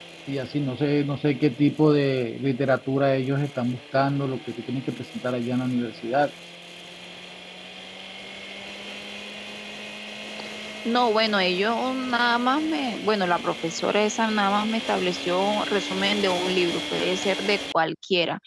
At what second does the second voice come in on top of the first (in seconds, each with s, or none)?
none